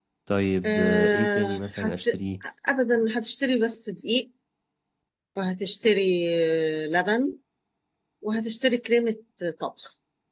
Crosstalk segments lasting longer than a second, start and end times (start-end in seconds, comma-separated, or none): 0.6-2.1